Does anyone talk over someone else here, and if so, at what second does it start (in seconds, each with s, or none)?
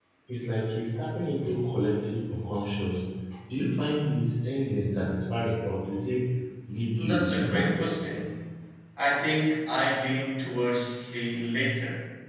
7.0 s